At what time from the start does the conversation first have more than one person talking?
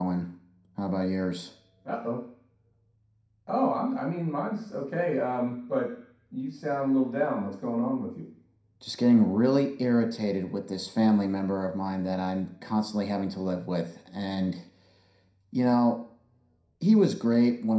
none

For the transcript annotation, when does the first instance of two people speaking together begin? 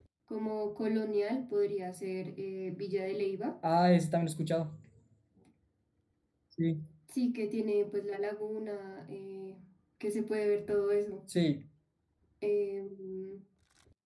none

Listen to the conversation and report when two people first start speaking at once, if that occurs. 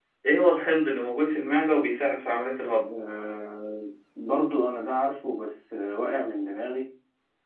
none

